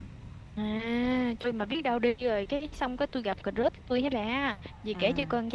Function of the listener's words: listening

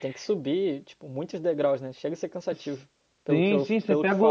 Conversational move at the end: taking over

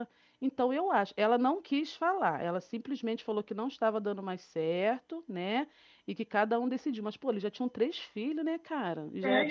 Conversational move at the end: taking over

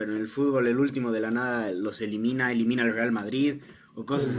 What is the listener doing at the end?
taking over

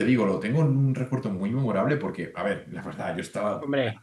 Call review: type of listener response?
listening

